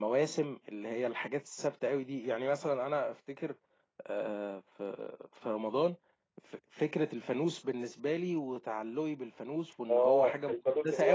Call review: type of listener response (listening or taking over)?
taking over